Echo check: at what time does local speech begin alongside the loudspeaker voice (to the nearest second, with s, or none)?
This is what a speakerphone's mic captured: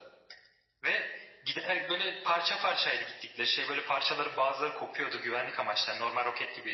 none